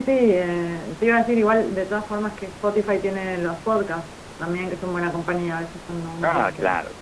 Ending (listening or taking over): taking over